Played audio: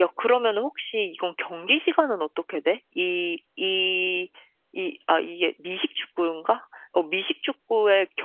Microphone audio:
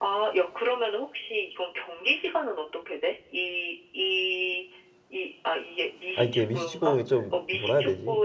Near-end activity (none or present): present